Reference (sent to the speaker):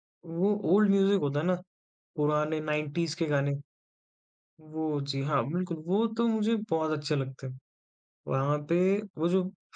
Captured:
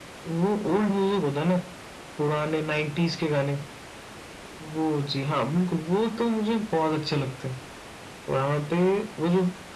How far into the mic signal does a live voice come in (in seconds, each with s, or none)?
none